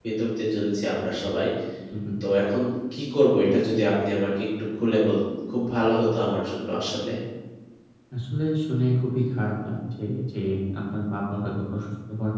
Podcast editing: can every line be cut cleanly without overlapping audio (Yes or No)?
Yes